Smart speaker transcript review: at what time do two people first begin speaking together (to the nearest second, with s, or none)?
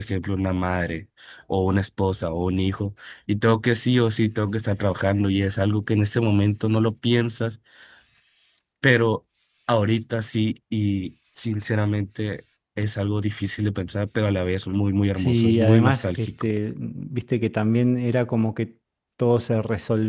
15 s